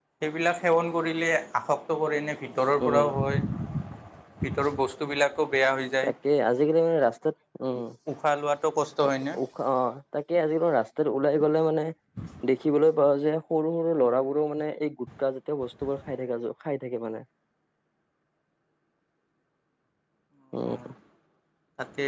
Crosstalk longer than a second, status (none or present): none